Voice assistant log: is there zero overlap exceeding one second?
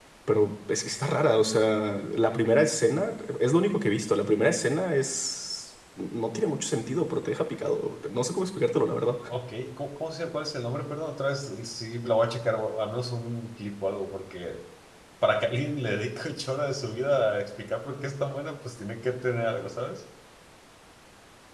Yes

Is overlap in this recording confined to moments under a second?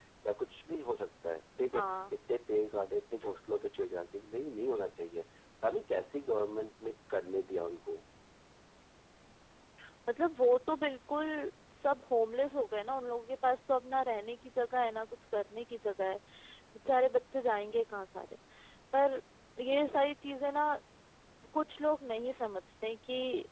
Yes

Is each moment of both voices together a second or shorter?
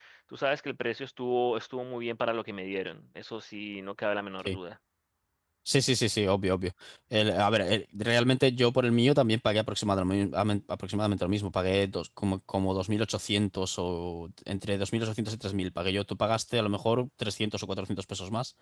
Yes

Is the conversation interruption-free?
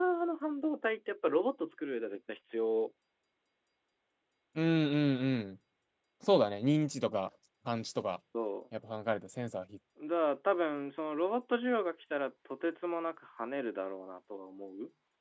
Yes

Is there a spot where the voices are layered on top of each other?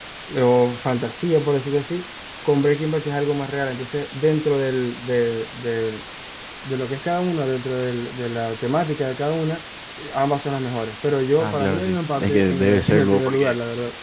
Yes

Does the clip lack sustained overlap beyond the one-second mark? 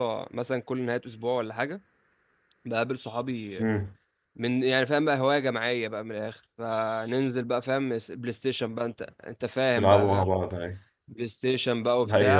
Yes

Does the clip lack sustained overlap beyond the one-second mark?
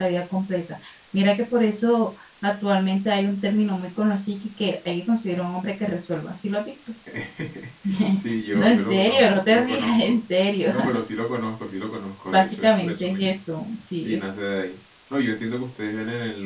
No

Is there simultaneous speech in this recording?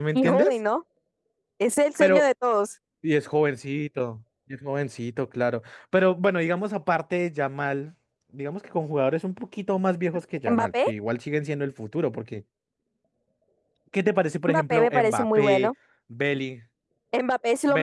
Yes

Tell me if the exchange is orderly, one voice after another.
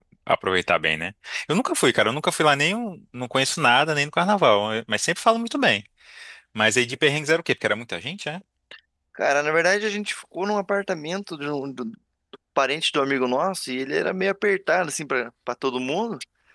Yes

